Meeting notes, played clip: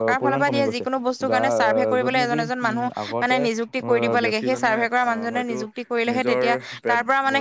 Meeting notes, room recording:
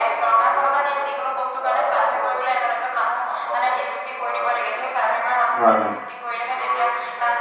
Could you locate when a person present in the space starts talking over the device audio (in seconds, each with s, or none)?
5.6 s